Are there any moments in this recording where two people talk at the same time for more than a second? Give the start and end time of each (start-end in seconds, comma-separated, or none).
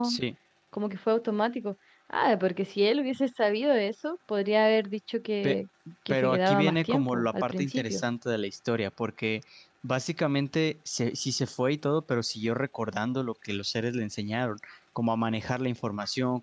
6.1-8.0